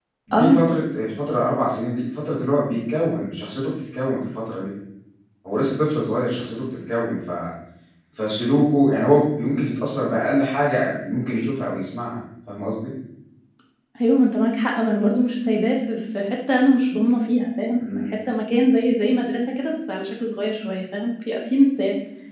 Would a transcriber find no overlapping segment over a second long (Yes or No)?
Yes